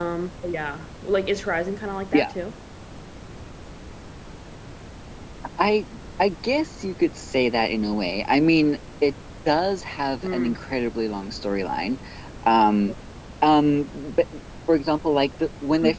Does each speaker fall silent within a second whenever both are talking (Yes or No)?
Yes